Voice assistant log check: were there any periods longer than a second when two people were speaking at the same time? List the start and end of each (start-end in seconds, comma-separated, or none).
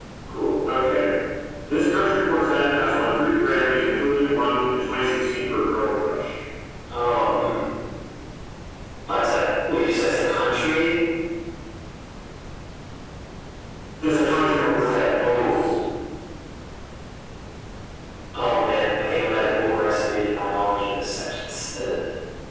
14.1-15.6